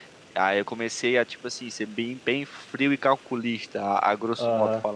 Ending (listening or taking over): taking over